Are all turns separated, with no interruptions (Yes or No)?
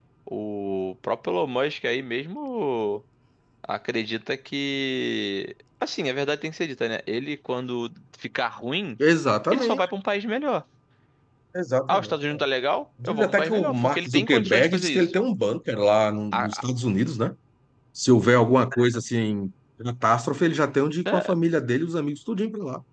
No